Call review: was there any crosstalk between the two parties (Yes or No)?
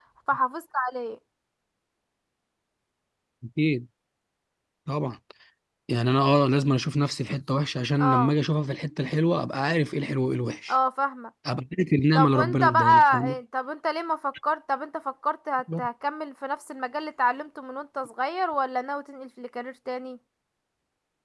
Yes